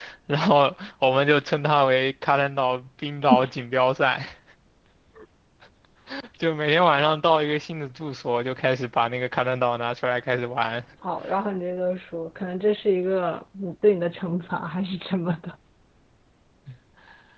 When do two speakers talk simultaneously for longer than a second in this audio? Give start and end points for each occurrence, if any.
none

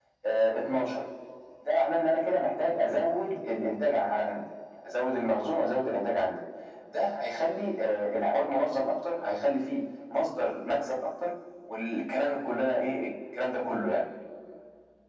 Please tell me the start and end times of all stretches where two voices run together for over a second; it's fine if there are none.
none

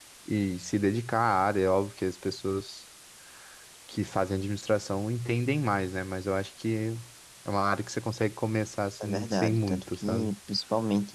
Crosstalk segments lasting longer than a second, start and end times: 9.0-10.3

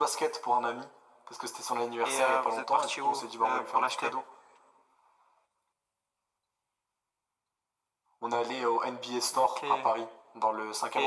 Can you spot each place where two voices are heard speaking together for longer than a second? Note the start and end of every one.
2.0-4.1

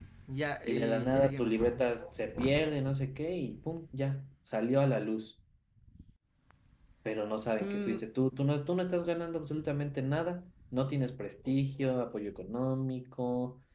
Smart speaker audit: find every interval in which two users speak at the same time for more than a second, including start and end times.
0.6-1.9

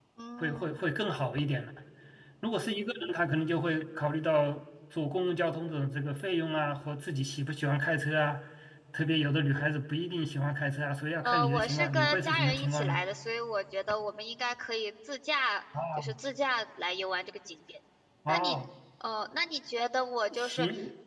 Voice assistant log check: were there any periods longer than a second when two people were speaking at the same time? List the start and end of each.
11.2-13.0

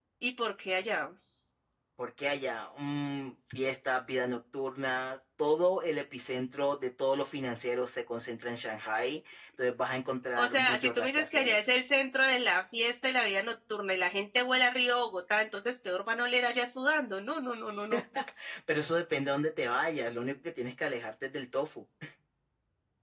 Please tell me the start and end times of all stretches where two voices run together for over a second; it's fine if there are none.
10.4-11.7

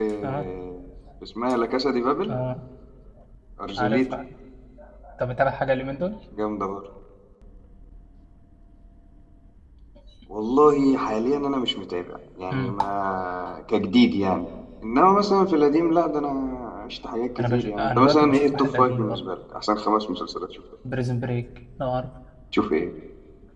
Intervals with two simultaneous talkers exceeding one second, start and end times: 17.4-19.2

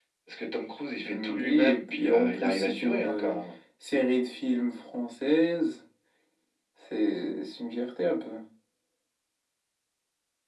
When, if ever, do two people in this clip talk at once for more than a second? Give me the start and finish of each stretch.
1.0-3.3

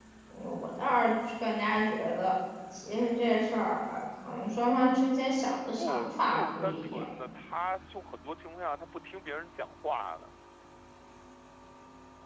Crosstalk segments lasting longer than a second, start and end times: 5.8-7.0

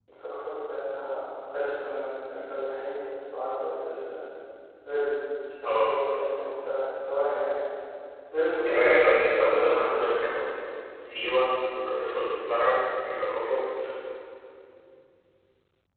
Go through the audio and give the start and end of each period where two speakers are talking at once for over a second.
8.6-10.2

